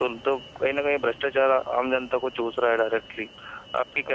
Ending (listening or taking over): taking over